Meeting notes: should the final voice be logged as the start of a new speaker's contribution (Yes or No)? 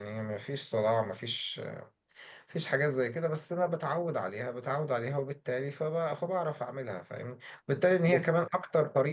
No